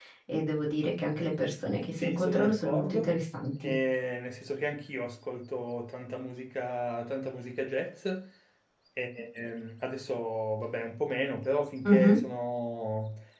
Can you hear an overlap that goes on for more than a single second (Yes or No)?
Yes